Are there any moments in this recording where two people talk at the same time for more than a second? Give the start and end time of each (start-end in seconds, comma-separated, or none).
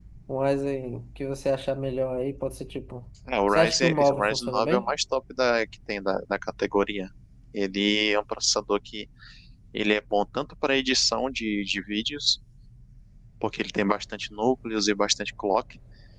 3.5-4.9